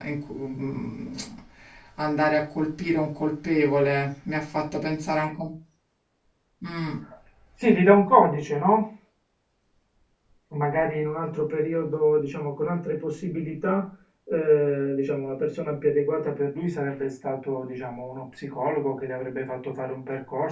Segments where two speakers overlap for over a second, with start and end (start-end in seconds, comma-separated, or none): none